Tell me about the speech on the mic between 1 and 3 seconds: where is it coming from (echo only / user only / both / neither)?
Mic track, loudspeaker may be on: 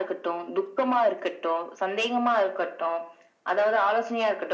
echo only